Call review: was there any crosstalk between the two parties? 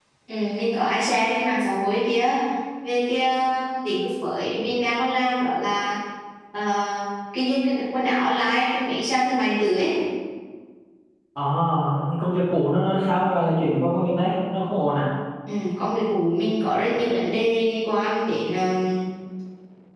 No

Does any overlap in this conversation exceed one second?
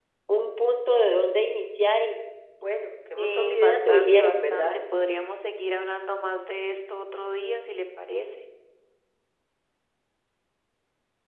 Yes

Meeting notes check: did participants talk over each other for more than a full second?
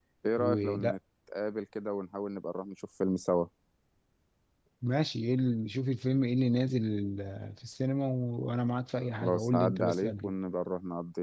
Yes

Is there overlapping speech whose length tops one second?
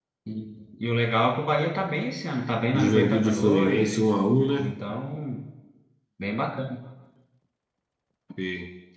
Yes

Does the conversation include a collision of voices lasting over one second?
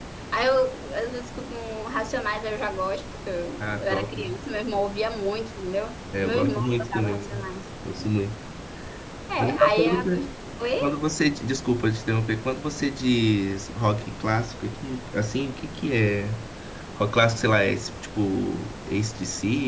Yes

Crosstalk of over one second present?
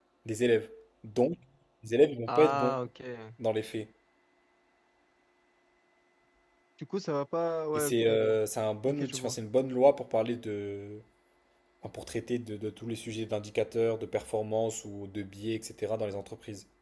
No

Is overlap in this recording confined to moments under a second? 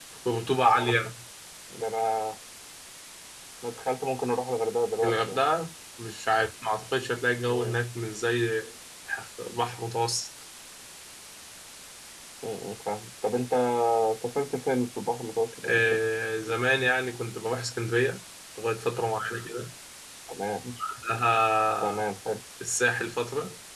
Yes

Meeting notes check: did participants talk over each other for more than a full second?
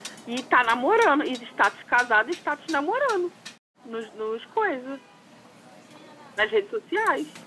No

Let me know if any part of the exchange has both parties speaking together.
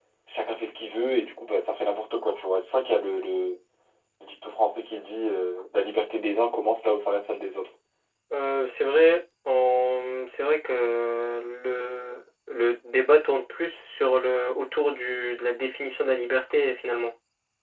No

